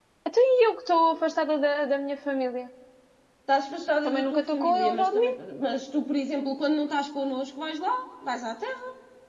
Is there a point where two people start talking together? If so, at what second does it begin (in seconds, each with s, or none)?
4.0 s